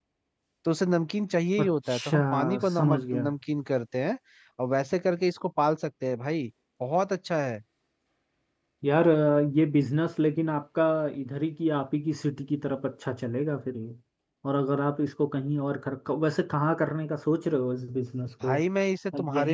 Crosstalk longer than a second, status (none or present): present